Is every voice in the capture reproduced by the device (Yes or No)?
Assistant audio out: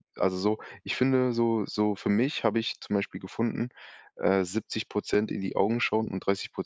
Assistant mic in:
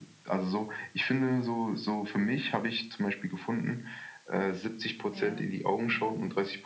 No